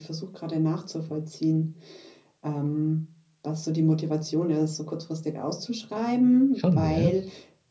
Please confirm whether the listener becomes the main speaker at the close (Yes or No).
No